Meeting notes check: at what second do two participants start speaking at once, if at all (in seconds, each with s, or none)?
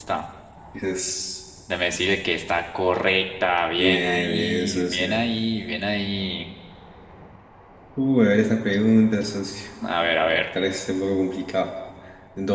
3.8 s